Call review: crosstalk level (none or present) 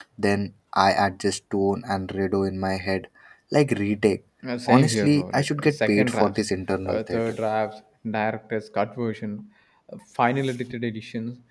present